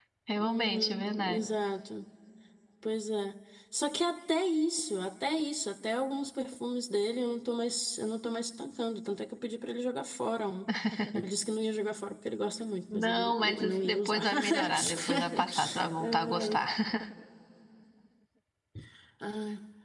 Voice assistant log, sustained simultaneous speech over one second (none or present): present